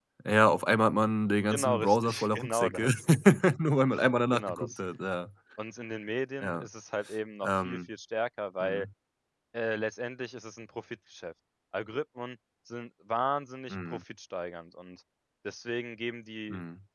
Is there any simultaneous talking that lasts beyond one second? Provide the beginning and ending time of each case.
1.5-2.9

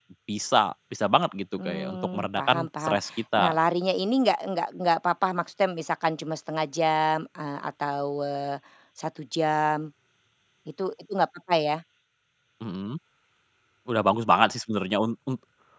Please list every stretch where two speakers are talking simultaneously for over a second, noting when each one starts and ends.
1.6-3.0

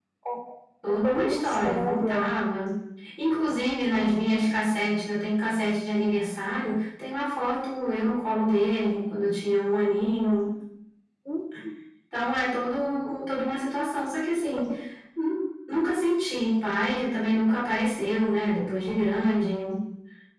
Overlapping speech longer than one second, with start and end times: 1.0-2.3

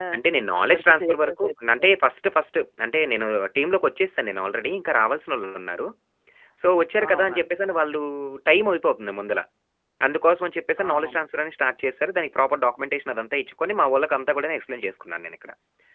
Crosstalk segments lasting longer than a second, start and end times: 0.6-1.9

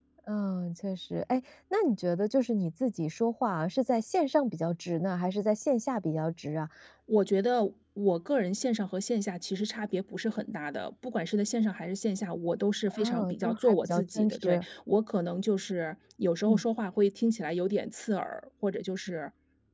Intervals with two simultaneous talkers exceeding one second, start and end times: 12.9-14.6

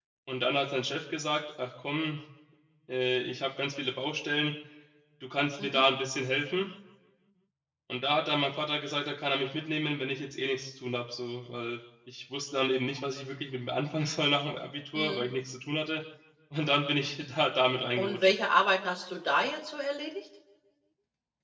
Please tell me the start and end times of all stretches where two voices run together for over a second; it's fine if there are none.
none

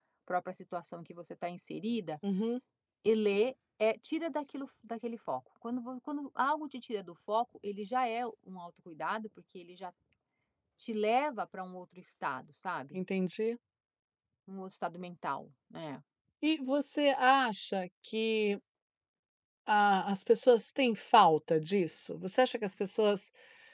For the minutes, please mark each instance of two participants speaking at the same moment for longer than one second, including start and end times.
none

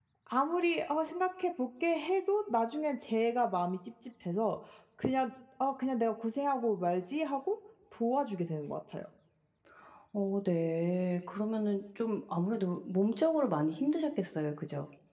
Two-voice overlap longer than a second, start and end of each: none

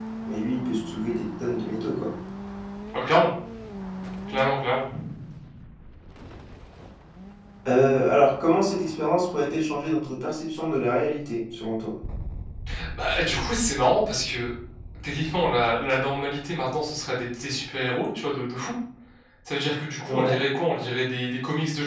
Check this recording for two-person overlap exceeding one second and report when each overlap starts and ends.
none

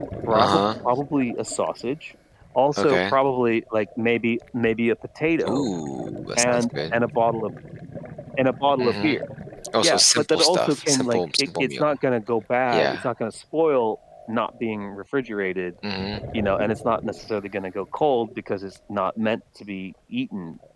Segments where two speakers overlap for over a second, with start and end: 9.8-11.9

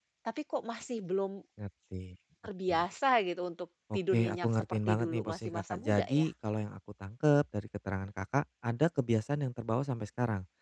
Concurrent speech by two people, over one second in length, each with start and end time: 3.9-6.2

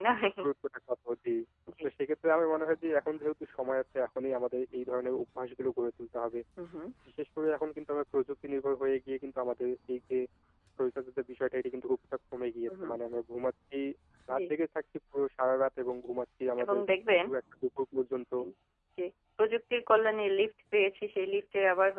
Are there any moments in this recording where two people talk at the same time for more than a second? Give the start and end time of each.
none

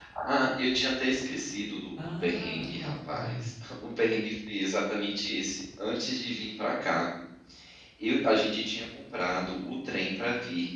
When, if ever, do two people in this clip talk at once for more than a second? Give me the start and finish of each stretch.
2.2-3.5

